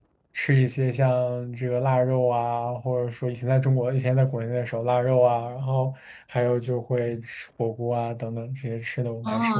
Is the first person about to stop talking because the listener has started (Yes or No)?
Yes